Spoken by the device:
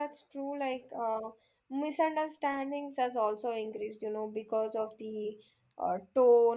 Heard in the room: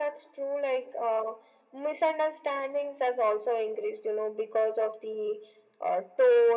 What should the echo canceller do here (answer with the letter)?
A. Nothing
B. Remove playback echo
B